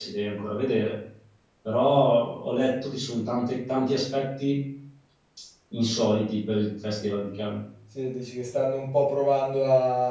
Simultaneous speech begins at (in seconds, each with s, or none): none